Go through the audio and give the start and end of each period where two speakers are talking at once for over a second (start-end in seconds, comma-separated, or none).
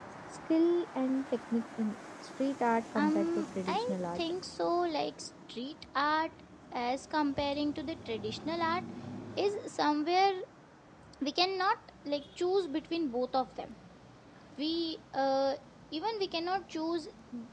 3.0-4.2